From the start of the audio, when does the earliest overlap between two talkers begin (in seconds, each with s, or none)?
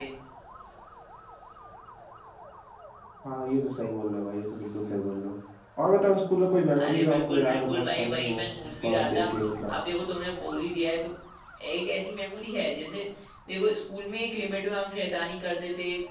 6.8 s